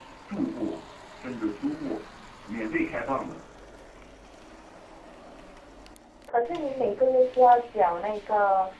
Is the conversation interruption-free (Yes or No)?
Yes